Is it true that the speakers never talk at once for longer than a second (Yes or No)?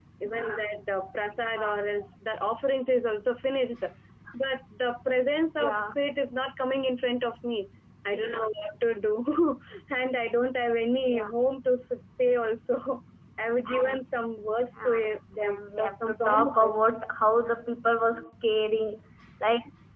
No